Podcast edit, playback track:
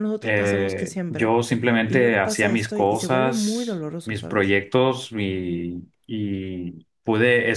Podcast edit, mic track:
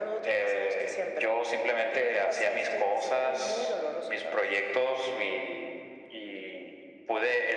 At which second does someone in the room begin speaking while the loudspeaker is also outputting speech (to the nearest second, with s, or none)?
none